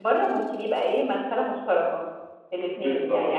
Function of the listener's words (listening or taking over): listening